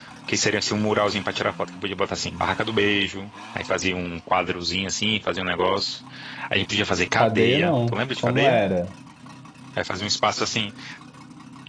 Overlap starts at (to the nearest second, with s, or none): 7 s